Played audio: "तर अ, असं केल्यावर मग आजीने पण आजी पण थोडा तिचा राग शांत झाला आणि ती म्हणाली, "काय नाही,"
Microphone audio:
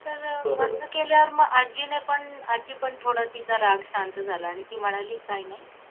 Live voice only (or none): बरोबर,